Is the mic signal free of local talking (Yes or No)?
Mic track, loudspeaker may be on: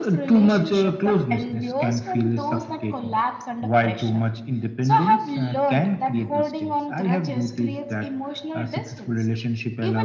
Yes